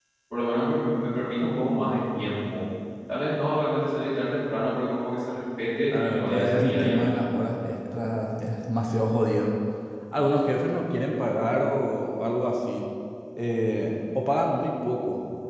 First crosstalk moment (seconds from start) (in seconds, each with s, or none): 5.9 s